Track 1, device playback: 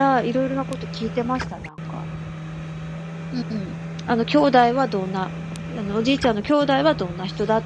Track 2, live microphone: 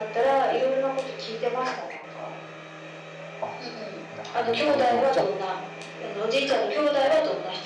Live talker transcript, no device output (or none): あ、なるほど。じゃ